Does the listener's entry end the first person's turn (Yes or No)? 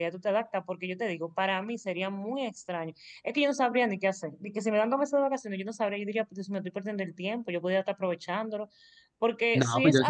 Yes